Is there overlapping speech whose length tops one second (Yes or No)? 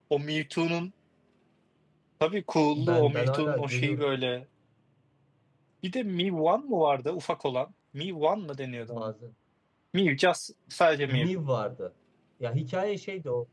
Yes